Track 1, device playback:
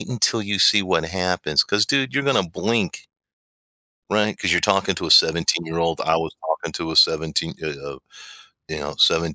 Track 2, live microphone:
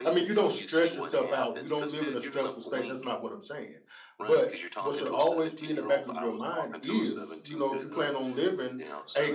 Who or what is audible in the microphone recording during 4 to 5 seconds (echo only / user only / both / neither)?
both